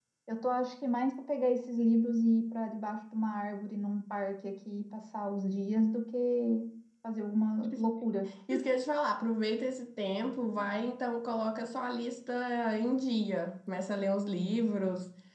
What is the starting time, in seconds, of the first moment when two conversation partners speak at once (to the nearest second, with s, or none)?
none